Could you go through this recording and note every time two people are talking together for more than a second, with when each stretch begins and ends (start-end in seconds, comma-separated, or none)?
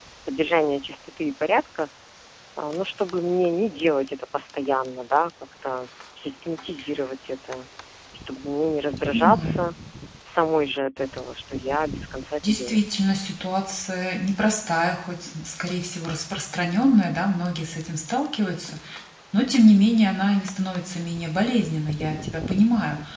none